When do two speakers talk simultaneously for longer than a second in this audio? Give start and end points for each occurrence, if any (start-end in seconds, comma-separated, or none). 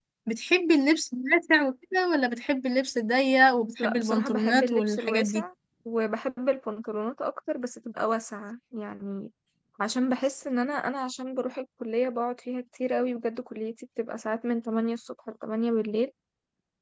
3.8-5.4